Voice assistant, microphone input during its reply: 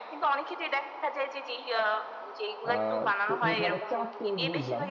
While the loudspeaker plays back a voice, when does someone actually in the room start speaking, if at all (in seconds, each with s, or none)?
2.7 s